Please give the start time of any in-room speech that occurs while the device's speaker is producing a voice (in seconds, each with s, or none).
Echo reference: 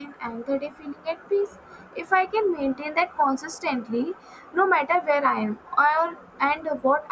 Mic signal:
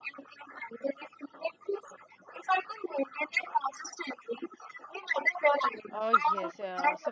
5.9 s